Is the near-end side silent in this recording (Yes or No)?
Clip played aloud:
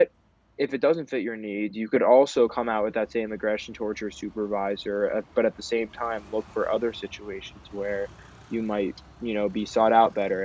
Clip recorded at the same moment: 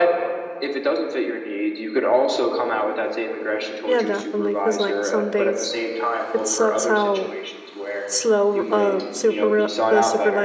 No